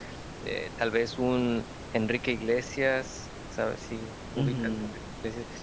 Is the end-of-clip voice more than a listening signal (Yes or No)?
Yes